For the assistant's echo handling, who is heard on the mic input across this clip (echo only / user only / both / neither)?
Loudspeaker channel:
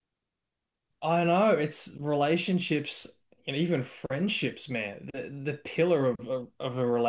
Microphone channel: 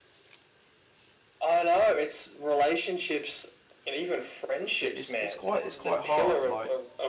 both